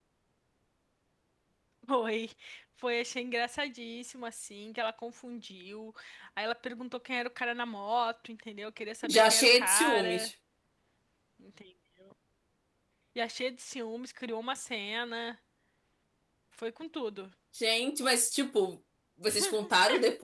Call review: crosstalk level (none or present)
present